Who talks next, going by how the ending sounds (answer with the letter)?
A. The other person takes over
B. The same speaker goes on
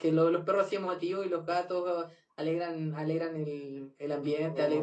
B